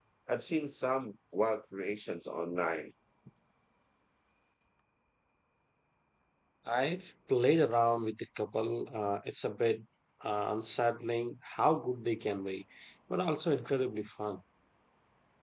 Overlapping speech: No

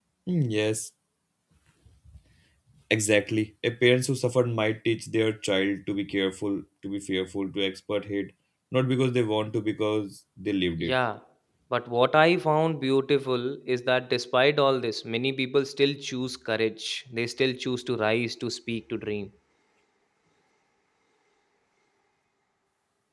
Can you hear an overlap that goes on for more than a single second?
No

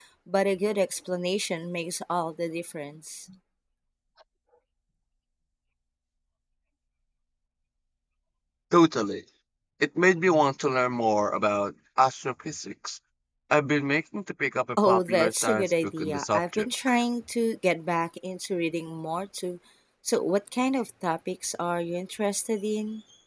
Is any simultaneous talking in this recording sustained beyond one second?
Yes, from 14.8 s

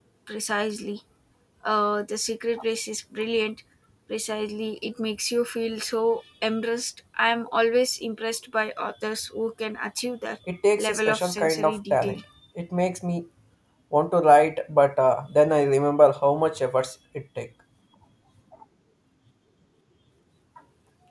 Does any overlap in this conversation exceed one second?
Yes, from 10.9 s

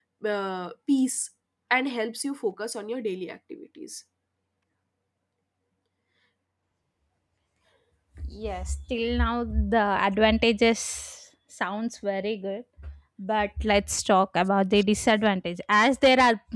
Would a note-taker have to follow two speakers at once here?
No

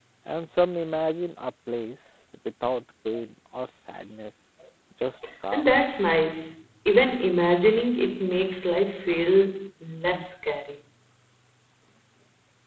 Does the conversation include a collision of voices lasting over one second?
No

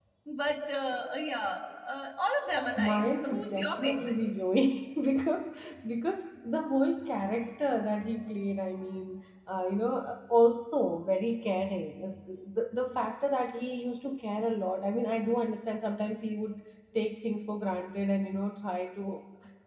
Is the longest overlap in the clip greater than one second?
Yes, from 2.7 s

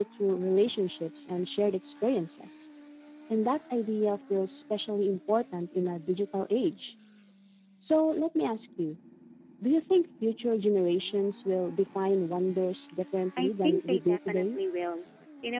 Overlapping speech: Yes, from 13.4 s

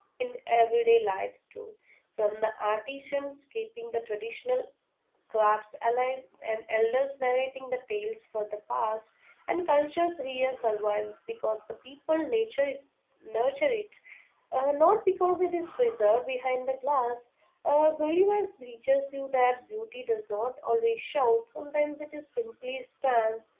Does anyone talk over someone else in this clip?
No

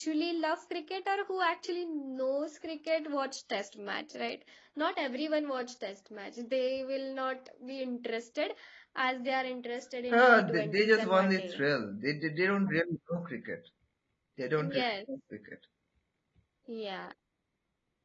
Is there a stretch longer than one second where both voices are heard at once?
Yes, from 10.1 s

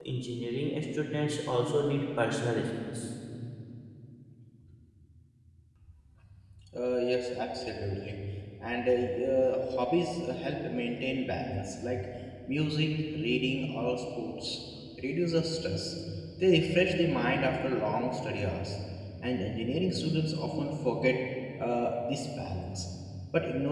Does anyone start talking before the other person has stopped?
No

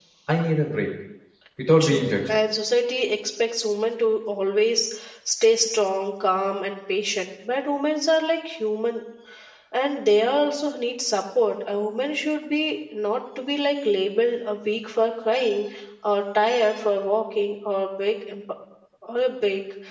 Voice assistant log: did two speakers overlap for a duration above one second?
No

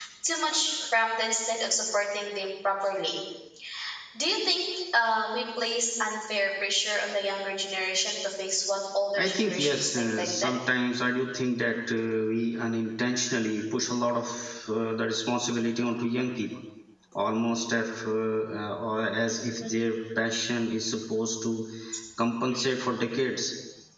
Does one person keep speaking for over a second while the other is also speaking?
Yes, from 9.2 s

